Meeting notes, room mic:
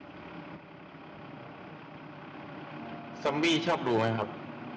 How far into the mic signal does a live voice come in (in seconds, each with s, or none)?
3.2 s